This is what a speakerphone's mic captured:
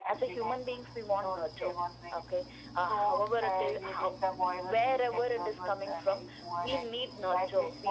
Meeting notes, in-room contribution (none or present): none